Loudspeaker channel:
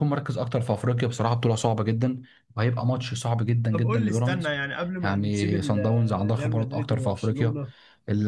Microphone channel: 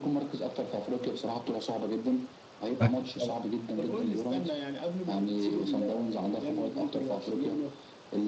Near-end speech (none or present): present